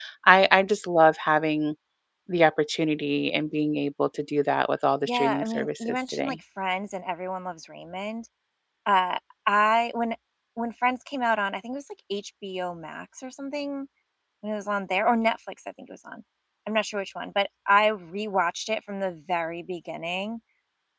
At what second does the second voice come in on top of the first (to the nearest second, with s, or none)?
5 s